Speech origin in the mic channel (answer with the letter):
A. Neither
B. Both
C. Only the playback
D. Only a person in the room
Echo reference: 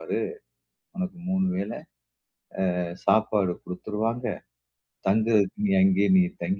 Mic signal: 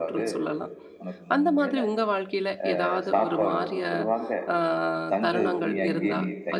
B